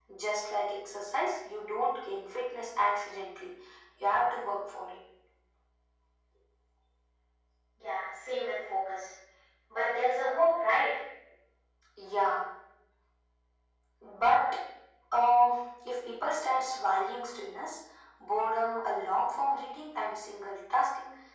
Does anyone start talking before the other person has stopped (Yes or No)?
No